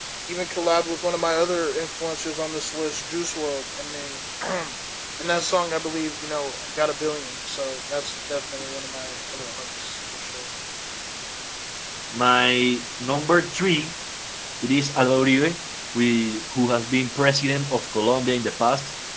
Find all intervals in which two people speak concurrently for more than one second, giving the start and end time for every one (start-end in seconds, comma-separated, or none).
none